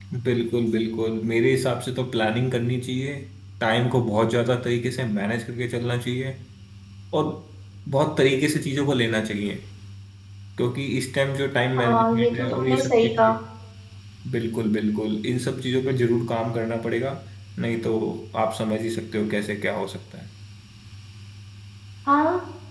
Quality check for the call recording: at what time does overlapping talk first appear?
11.8 s

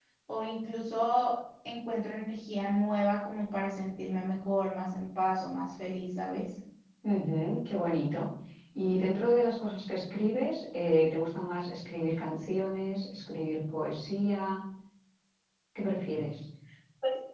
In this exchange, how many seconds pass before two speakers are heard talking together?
none

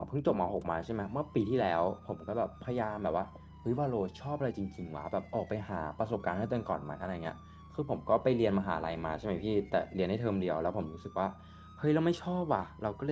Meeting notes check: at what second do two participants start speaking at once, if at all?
none

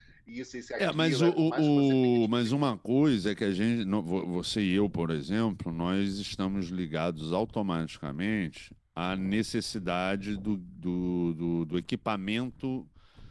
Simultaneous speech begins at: 0.8 s

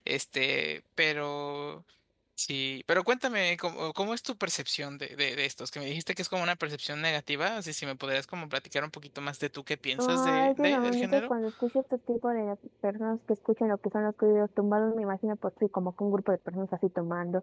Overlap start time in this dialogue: 10.0 s

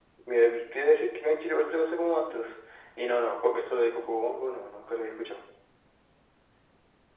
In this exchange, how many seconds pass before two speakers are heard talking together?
none

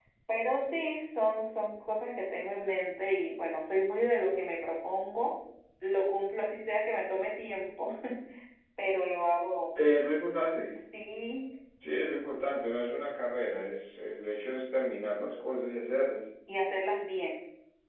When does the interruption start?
none

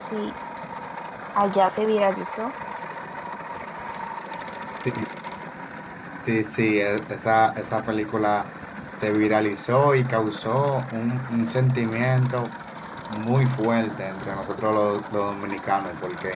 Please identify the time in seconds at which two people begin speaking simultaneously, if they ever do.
none

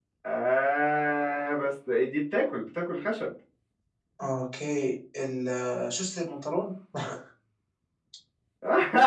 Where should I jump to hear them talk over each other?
none

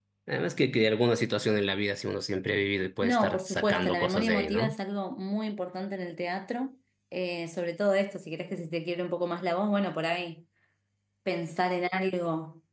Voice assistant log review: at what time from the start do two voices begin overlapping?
3.0 s

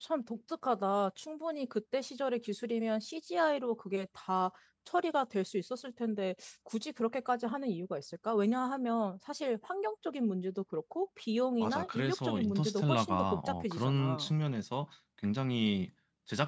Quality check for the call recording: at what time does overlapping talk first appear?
11.6 s

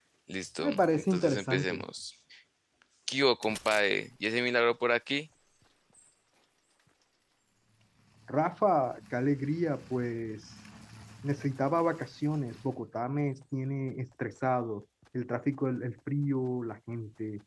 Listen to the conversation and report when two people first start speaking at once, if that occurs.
0.6 s

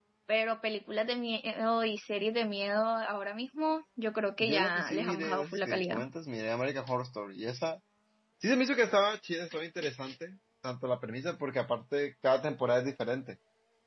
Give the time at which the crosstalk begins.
4.4 s

